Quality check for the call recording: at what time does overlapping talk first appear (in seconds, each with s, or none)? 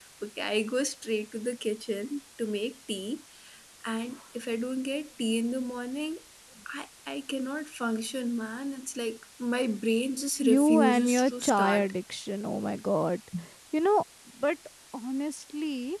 10.4 s